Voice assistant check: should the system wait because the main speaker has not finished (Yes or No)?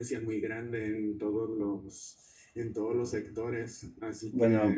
No